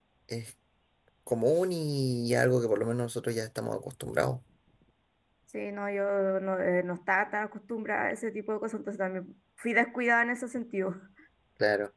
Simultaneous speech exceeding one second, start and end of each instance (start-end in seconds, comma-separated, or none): none